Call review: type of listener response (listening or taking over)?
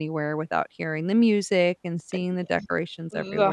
taking over